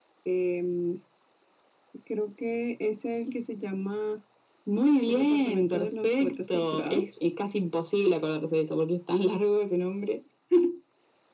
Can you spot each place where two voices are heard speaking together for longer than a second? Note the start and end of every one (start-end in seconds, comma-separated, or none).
5.1-7.1